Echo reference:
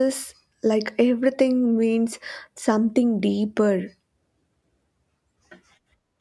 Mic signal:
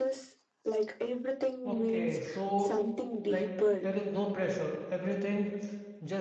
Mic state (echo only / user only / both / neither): both